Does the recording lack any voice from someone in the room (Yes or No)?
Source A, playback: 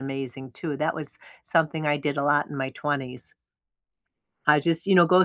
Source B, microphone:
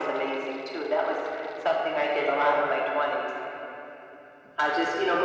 Yes